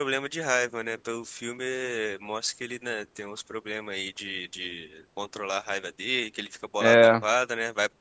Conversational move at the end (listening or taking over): listening